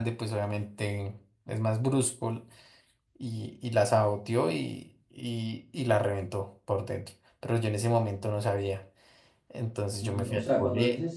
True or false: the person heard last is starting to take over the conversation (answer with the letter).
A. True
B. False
A